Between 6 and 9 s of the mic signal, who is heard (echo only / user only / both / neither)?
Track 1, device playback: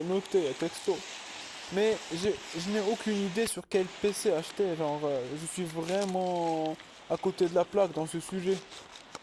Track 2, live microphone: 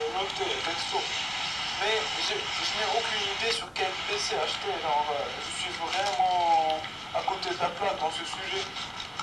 echo only